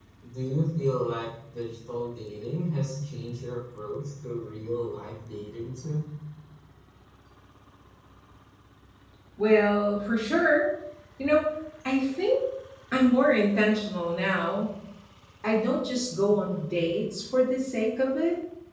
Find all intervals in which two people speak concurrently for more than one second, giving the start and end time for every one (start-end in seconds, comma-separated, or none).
none